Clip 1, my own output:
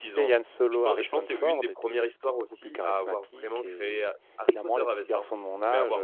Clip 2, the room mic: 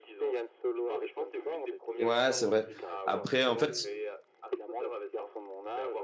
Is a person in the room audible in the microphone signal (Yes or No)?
Yes